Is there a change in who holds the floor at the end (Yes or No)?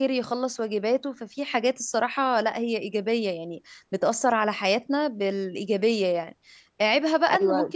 No